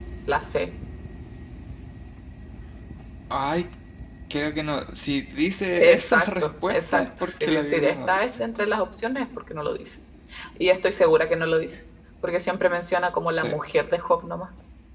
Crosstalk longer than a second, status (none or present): present